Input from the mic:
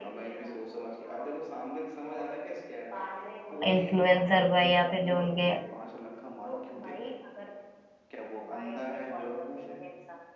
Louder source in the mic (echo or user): user